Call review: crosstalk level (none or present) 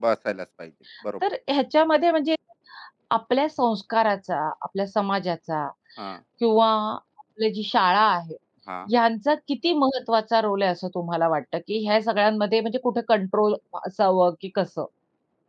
none